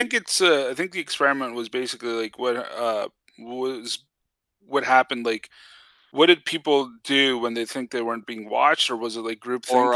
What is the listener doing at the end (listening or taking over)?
taking over